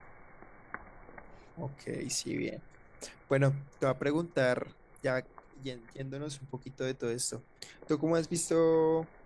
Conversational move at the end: listening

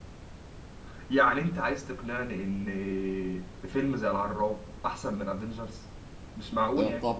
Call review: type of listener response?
taking over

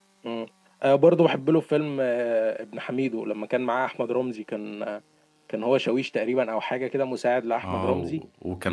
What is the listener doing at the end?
taking over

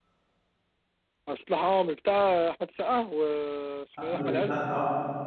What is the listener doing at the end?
taking over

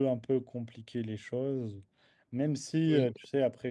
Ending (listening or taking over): listening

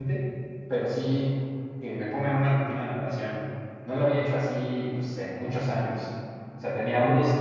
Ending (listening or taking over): listening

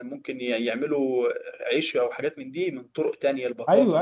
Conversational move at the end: taking over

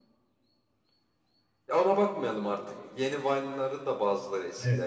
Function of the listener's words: taking over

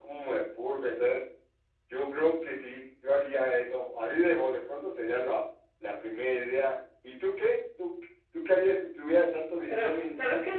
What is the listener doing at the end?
taking over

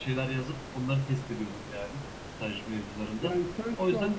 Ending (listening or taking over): taking over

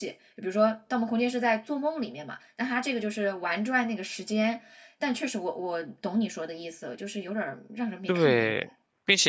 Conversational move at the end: taking over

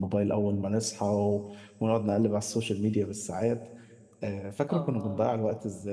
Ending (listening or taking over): listening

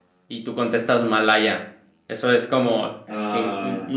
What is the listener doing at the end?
listening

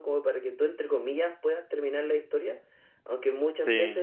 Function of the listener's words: listening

